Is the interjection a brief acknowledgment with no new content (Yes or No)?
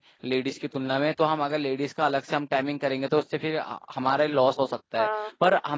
Yes